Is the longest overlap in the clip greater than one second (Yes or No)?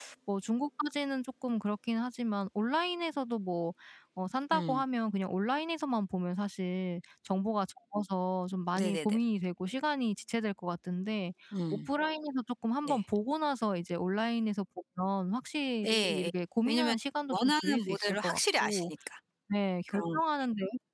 Yes